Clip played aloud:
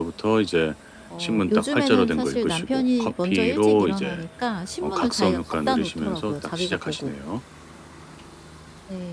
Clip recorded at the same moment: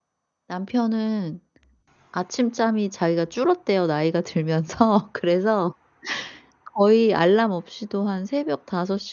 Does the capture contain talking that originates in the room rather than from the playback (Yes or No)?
Yes